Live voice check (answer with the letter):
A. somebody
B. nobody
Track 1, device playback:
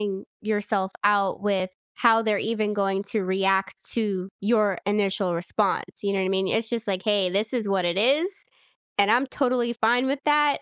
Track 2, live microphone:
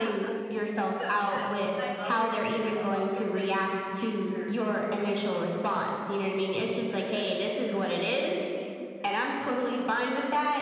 A